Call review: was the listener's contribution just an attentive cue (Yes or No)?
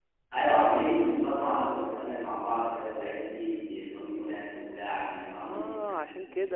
No